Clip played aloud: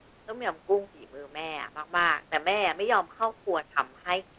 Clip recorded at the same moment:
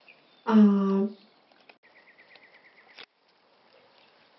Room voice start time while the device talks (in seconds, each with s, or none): 0.5 s